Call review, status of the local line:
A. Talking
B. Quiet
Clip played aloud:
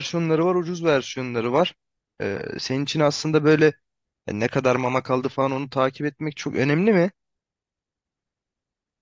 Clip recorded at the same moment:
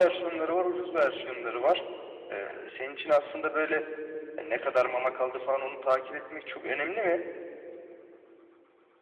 B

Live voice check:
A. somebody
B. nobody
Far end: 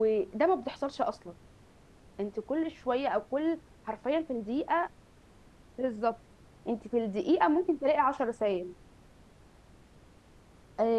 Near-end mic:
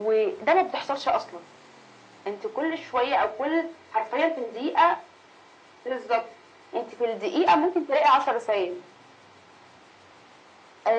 B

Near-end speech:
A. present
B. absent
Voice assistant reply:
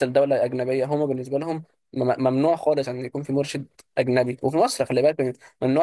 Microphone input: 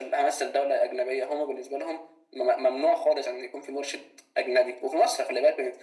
B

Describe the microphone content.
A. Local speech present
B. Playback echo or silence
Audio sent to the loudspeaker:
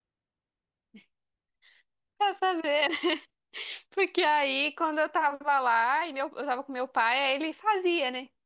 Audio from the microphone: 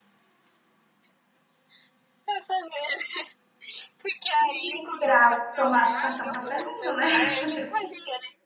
A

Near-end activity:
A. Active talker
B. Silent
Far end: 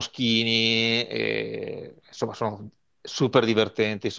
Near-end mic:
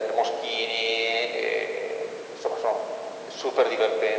B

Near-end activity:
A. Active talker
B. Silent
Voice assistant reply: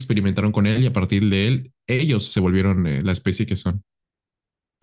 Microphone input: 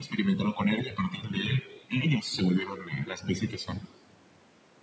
B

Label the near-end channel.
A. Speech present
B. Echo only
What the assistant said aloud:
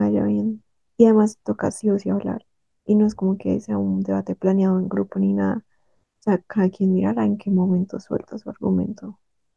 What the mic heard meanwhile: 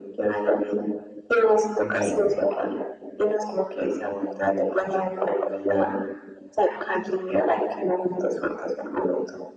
A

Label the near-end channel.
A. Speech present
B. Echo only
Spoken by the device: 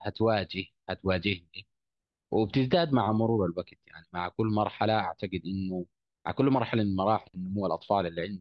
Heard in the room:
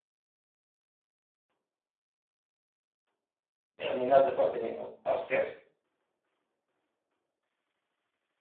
A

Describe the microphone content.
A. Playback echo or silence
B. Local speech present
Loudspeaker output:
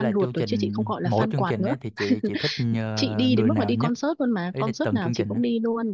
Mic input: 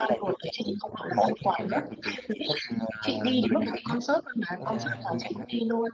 B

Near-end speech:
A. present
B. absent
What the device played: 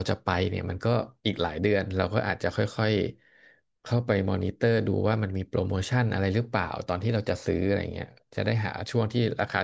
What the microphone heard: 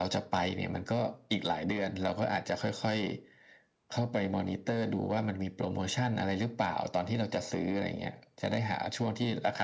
B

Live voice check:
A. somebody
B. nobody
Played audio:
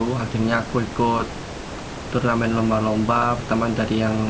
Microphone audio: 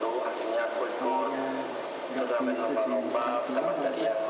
A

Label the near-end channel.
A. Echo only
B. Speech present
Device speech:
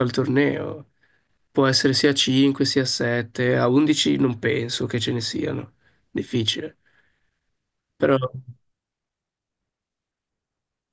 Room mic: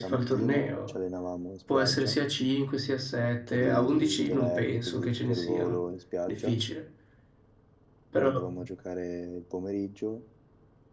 B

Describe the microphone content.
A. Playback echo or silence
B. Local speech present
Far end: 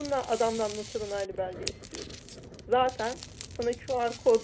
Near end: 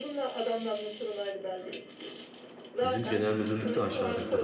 B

